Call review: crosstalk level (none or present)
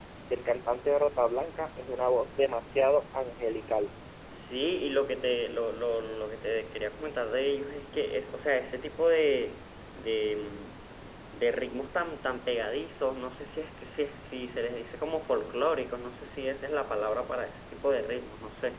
none